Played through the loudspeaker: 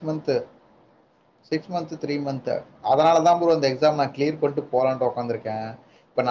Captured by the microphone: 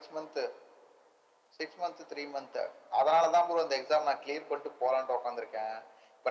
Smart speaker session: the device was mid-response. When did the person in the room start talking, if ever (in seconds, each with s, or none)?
none